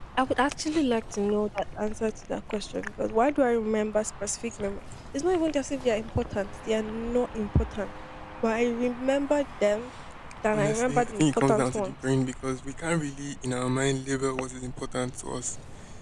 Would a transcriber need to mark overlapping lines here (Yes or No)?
Yes